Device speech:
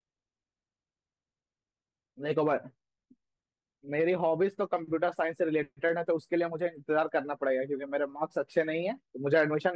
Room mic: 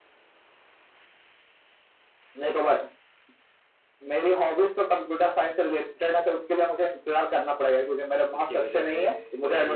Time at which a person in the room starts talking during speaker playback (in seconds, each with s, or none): 8.4 s